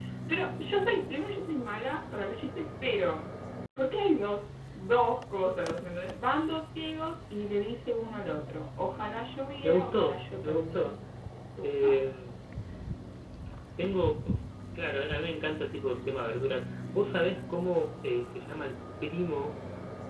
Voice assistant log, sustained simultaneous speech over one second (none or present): present